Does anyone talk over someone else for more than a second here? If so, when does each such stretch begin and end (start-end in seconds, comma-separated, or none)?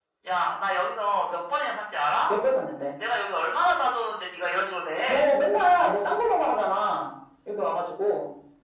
none